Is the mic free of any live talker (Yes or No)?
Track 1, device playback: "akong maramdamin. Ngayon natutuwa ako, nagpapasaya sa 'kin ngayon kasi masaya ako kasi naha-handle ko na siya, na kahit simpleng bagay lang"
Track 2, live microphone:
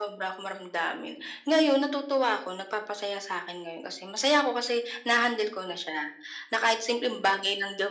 Yes